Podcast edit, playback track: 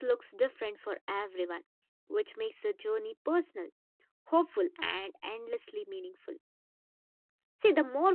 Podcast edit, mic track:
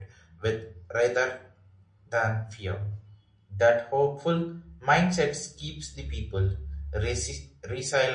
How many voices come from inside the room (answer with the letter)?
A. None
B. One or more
B